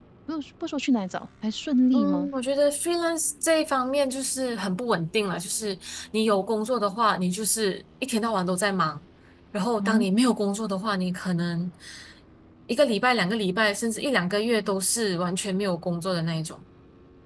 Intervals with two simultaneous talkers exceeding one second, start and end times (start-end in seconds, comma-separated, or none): none